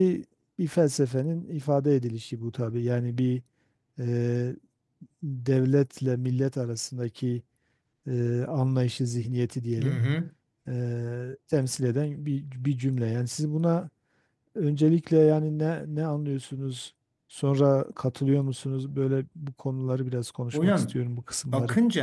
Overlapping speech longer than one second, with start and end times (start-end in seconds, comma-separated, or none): none